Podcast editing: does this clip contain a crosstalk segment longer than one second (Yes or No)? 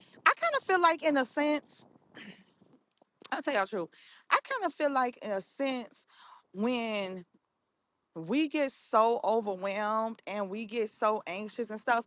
No